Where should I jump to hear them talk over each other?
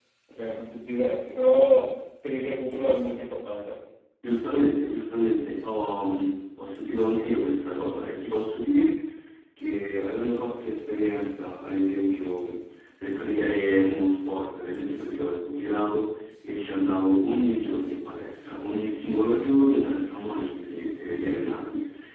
none

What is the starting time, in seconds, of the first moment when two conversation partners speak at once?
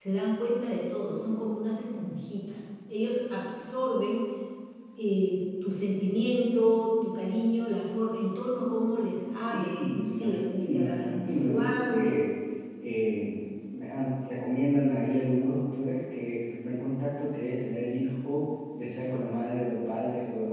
9.5 s

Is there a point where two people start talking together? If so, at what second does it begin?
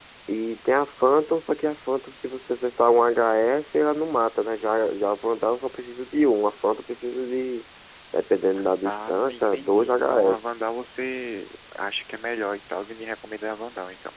8.8 s

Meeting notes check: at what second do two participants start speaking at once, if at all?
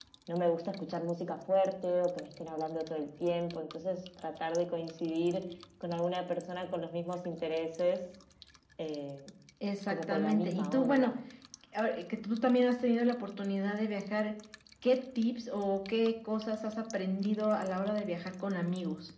9.9 s

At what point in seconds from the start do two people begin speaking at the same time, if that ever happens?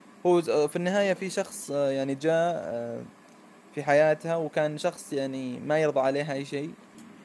none

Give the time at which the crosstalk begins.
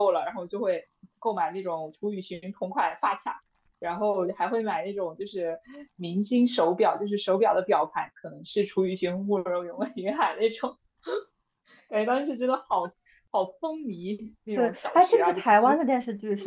14.6 s

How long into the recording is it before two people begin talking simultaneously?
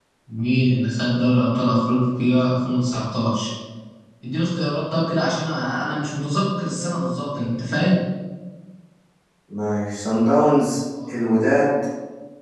none

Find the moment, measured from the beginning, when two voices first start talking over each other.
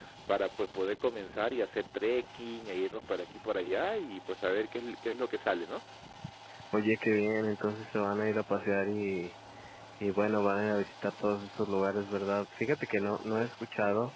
none

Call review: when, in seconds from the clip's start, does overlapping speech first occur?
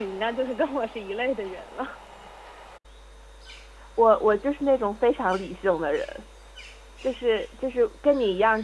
none

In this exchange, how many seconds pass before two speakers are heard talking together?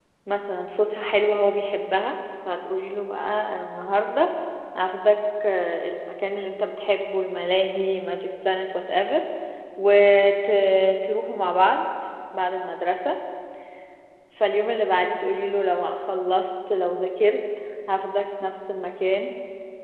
none

